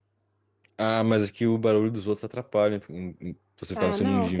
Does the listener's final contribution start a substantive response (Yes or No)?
Yes